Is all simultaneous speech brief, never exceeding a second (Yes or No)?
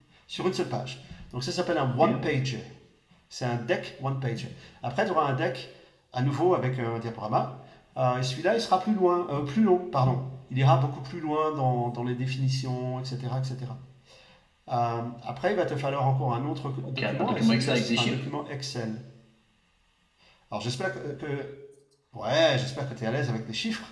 No